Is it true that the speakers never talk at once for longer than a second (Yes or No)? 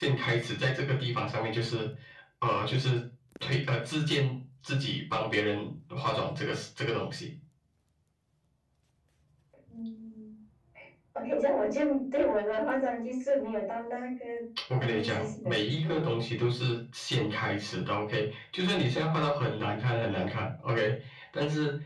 No